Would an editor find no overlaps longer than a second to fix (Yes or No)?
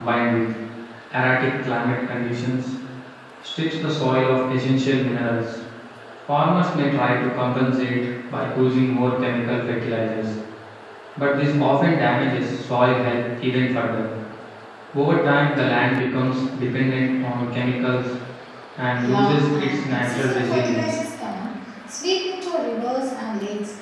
No